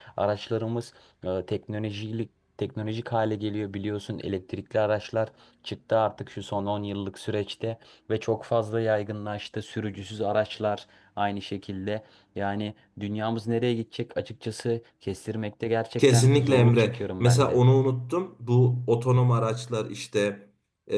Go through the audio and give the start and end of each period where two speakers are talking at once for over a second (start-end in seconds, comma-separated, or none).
16.0-17.6